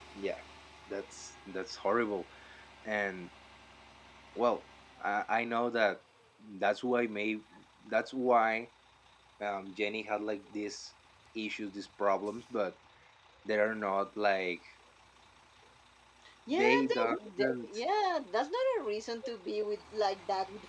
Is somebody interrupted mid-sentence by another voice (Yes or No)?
Yes